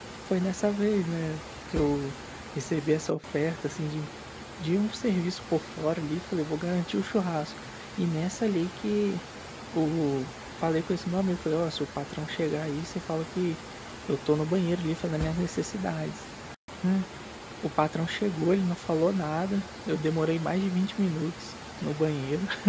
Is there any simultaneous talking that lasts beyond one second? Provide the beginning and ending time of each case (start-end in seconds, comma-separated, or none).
none